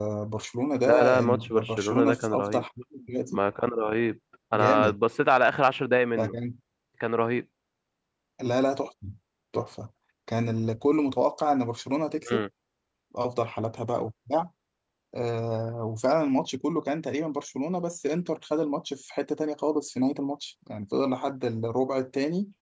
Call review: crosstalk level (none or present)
present